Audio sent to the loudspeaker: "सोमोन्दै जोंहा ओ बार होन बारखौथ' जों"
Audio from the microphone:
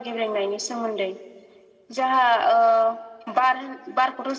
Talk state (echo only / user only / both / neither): echo only